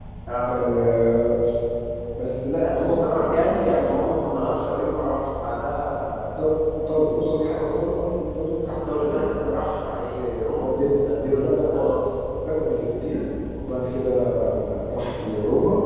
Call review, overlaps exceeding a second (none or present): present